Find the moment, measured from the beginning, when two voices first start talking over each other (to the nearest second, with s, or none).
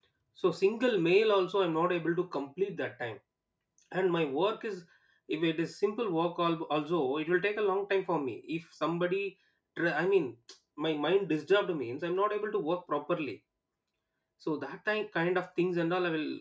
none